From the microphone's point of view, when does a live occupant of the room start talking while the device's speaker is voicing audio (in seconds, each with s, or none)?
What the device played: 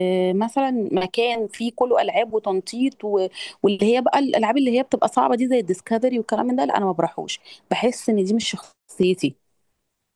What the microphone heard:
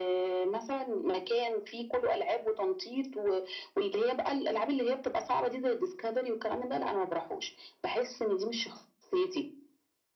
none